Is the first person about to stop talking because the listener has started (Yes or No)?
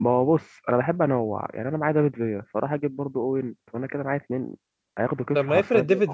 Yes